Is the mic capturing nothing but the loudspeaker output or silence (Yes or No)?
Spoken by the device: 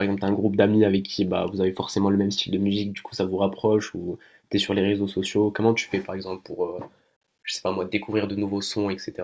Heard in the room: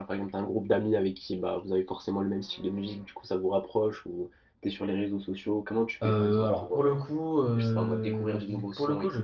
No